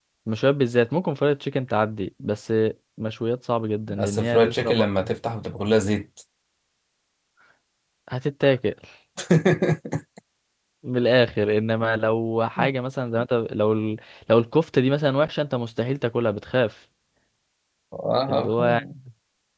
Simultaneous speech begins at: 3.9 s

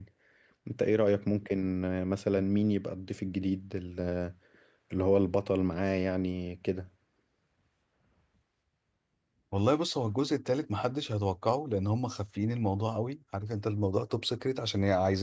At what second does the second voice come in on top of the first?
none

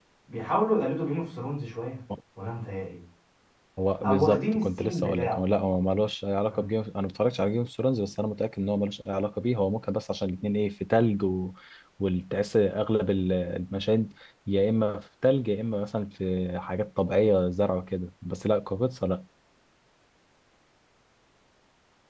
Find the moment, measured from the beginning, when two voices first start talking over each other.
4.0 s

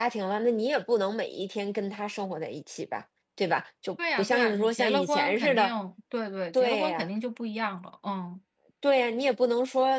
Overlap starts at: 4.2 s

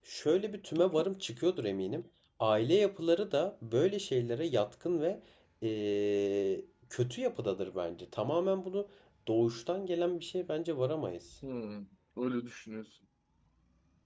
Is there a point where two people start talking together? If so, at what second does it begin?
none

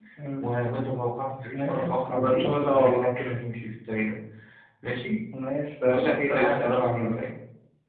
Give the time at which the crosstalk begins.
1.5 s

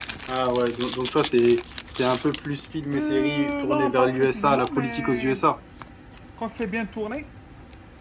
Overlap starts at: 2.9 s

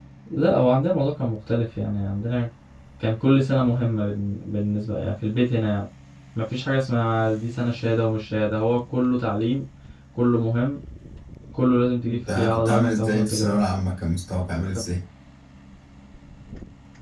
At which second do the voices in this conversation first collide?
12.1 s

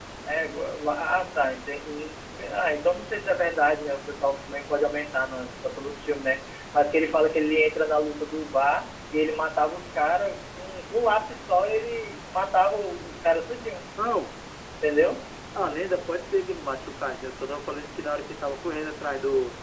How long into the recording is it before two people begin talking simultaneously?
none

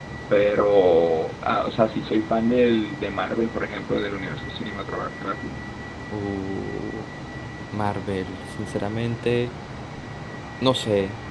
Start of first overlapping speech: none

